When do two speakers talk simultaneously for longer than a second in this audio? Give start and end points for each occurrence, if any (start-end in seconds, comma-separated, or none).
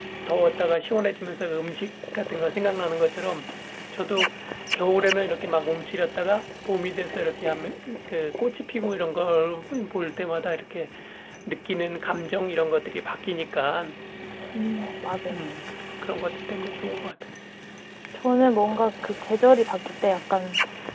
none